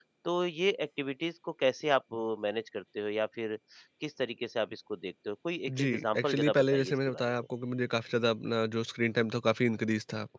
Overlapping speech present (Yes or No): Yes